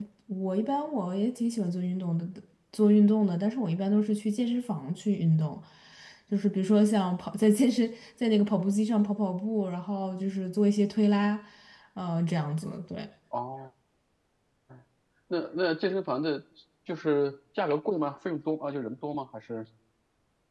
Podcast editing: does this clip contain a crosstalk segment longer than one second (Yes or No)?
No